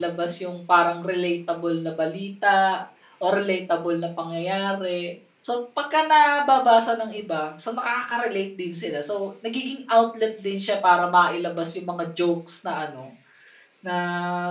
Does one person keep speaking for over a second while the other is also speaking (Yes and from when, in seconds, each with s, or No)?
No